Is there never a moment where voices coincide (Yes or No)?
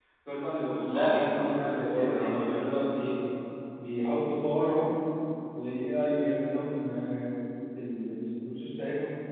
No